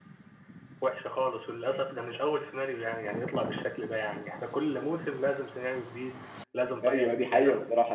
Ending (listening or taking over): taking over